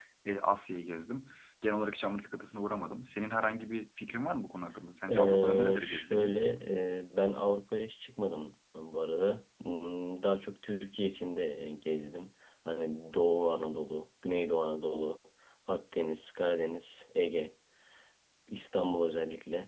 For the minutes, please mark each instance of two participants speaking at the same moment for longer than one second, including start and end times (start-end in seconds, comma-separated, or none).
5.1-6.3